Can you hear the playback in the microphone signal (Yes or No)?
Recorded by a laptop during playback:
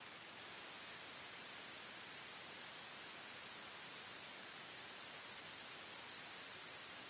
No